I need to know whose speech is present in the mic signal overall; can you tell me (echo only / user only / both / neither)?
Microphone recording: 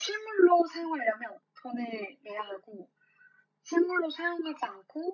echo only